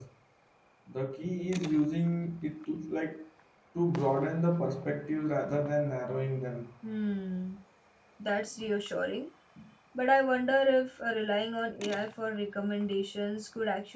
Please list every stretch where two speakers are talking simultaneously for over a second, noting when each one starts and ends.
none

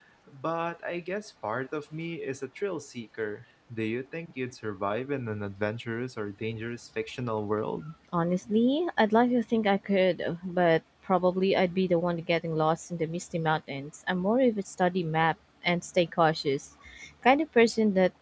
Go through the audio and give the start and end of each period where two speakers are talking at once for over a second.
none

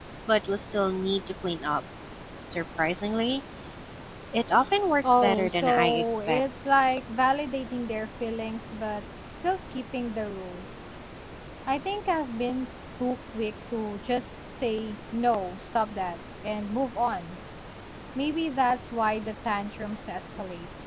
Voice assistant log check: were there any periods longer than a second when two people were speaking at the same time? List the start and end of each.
5.0-6.4

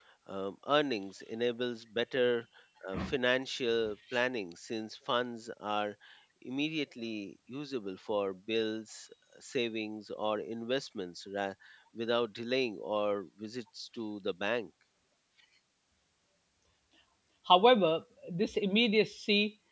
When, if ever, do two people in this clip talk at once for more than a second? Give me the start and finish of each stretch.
none

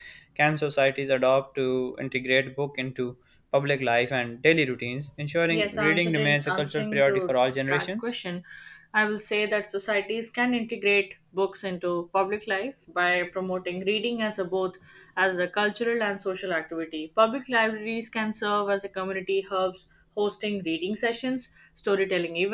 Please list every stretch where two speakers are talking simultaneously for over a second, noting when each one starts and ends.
5.5-7.2

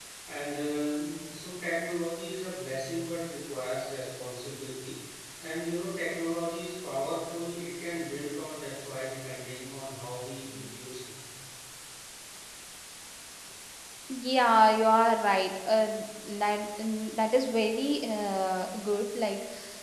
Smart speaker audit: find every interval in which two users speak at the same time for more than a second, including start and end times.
none

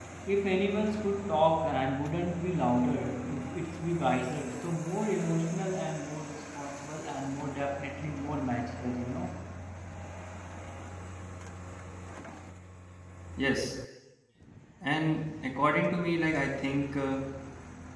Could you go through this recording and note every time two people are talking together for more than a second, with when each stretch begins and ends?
none

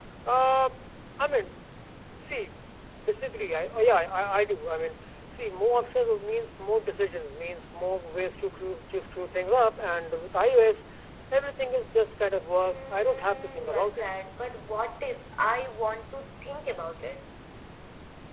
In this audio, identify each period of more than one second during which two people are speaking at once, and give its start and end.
12.6-14.1

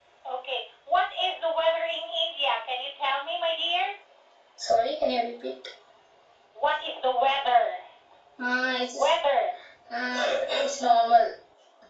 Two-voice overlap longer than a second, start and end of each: none

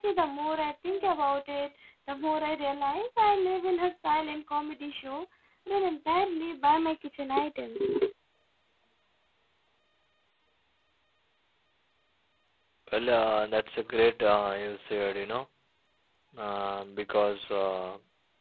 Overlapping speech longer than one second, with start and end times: none

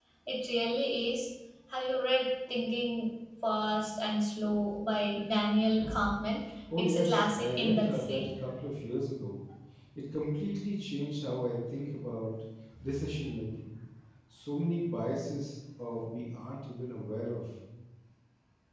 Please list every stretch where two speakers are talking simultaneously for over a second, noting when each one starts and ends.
6.8-8.3

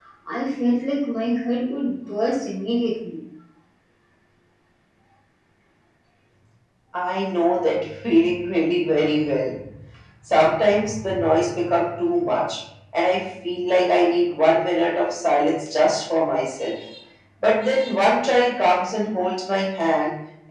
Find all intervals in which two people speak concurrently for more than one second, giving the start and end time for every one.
none

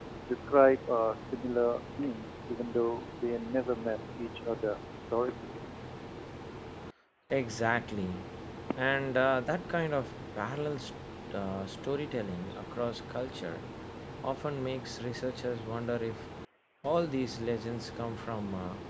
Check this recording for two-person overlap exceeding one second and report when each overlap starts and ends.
none

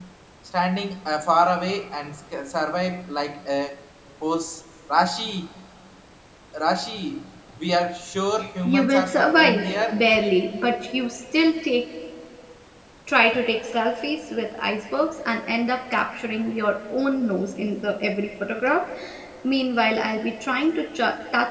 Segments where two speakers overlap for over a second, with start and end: 8.6-10.0

